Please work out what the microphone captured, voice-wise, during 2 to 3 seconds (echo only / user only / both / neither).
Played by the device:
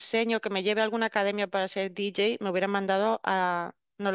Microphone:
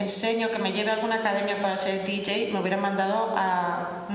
echo only